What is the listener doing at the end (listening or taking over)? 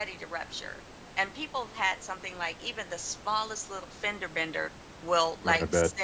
listening